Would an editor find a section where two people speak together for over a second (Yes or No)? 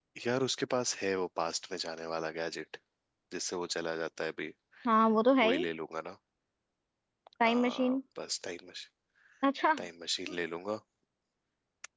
No